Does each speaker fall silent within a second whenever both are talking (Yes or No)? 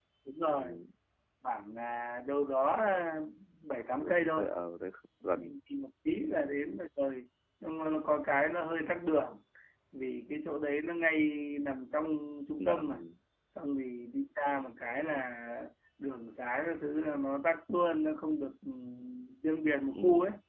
Yes